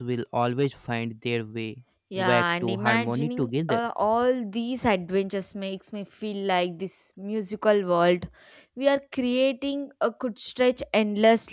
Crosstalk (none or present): present